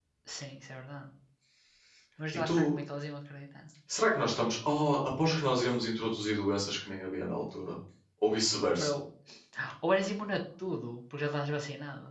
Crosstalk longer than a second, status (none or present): none